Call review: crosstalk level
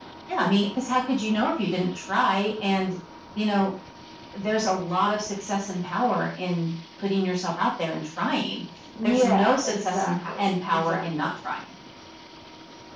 present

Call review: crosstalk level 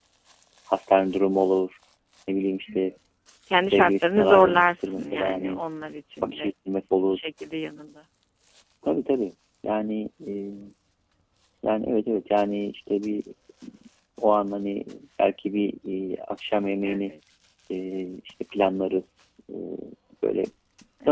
present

